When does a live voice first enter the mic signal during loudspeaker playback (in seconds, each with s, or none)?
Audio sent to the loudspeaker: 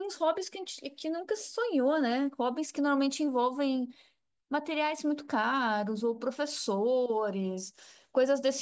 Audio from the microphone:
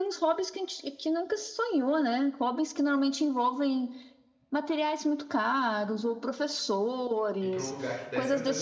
7.4 s